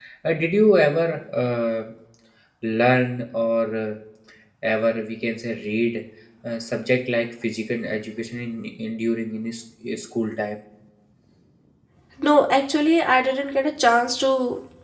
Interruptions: none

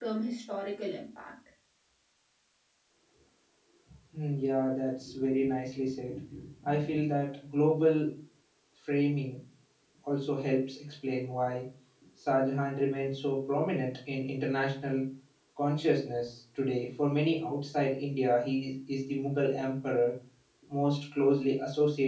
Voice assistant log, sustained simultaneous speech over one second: none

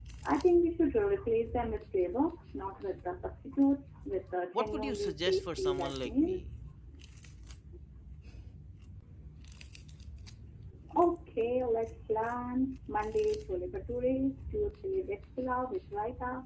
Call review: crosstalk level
present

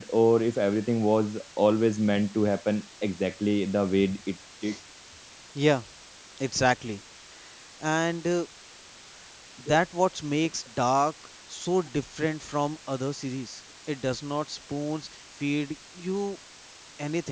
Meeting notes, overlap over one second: none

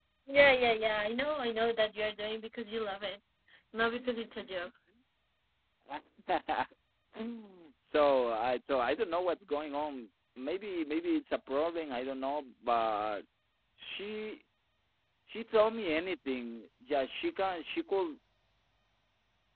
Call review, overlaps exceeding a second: none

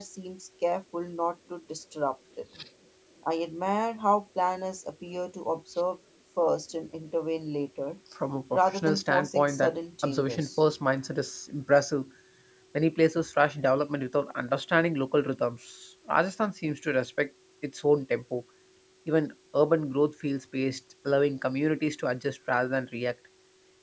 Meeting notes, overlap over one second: present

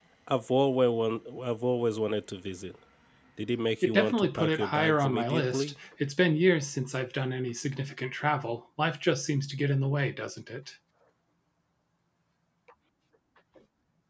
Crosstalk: present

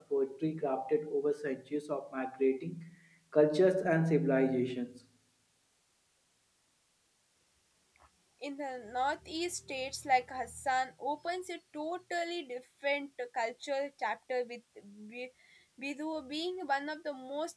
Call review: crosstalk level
none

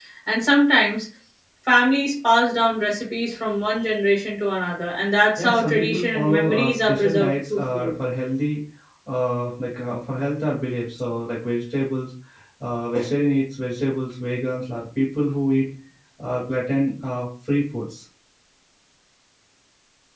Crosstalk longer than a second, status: present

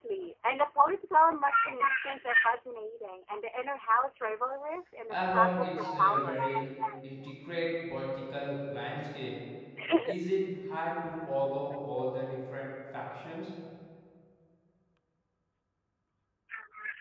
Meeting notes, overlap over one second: present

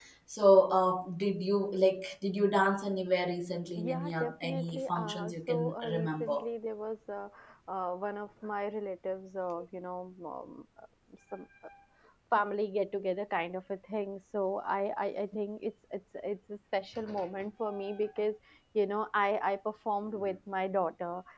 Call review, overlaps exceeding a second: present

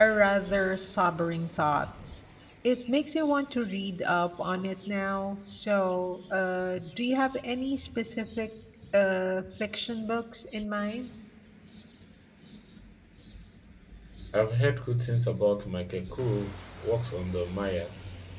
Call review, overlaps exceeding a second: none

